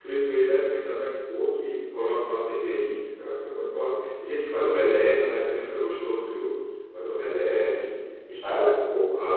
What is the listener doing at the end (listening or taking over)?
listening